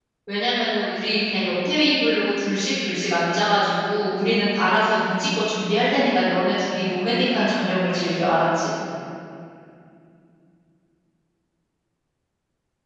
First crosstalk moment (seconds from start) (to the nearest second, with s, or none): none